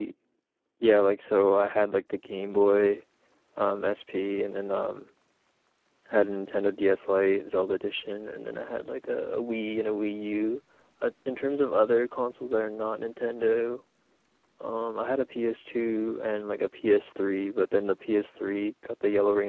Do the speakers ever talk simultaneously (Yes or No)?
No